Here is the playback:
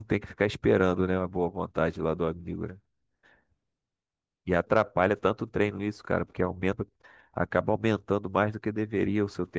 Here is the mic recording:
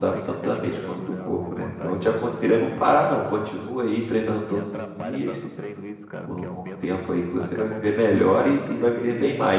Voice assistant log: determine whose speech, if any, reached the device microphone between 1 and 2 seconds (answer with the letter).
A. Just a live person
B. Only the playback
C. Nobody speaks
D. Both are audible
D